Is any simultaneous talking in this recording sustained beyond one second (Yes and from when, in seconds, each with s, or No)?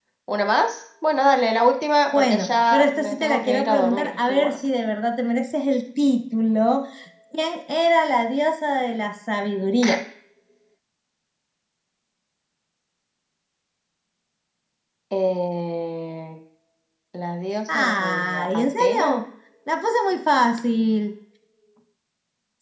Yes, from 2.1 s